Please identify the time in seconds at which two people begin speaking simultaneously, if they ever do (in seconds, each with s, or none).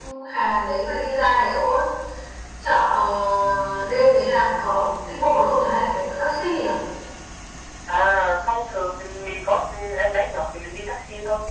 none